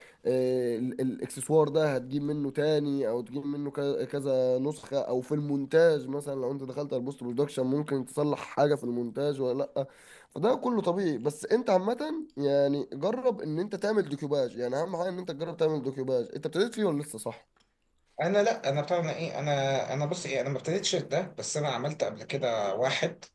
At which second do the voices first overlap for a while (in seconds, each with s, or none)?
none